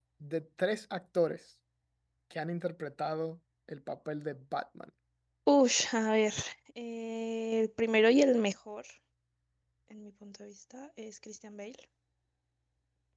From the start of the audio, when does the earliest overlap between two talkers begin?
none

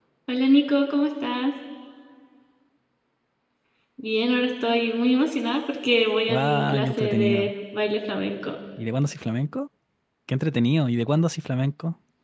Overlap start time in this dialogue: 6 s

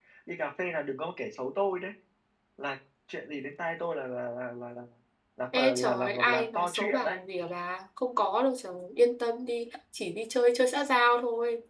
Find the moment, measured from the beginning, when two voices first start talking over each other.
6 s

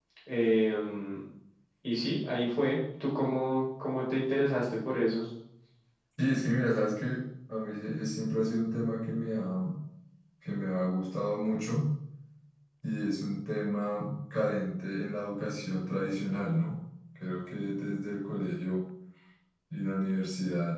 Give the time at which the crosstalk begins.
none

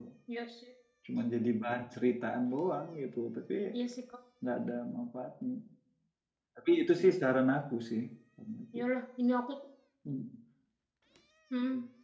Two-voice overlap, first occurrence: none

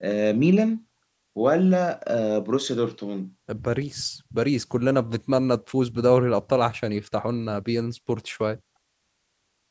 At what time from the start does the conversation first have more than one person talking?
none

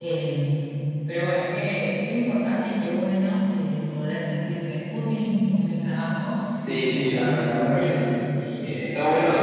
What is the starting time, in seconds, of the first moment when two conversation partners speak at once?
7 s

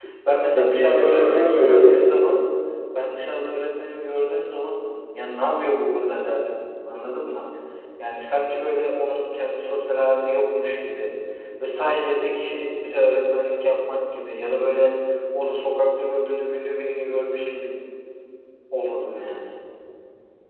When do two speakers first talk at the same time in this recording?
1 s

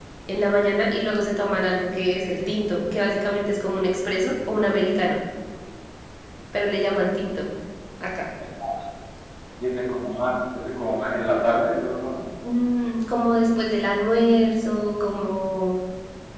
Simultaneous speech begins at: none

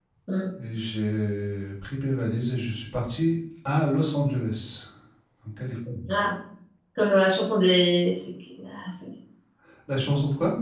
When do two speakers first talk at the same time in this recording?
none

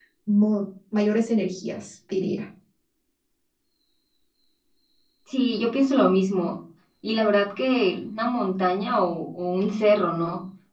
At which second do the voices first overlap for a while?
none

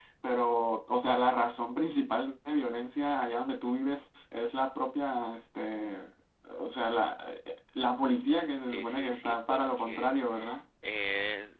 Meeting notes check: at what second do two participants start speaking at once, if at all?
9 s

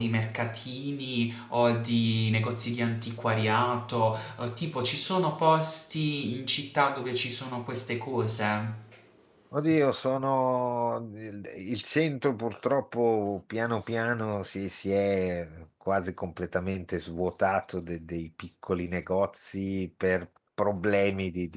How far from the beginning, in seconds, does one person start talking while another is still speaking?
none

